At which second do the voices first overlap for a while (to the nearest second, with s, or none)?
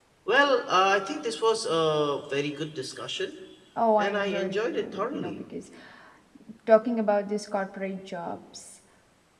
4 s